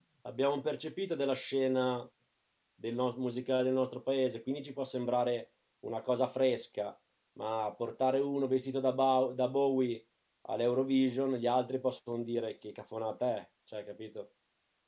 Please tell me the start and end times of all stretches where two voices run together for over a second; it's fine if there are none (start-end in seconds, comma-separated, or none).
none